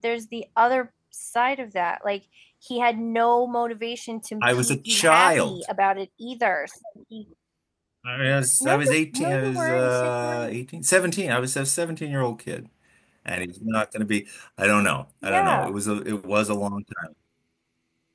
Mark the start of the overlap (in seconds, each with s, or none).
4.4 s